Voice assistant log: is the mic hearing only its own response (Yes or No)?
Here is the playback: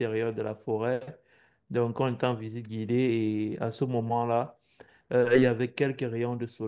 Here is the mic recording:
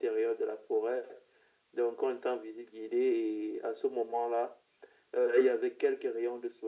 Yes